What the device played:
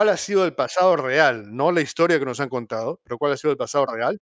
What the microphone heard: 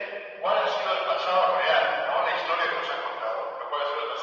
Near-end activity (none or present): none